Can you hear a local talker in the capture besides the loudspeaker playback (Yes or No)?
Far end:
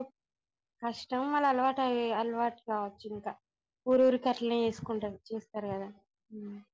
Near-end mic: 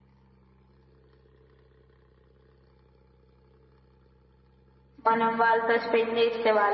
Yes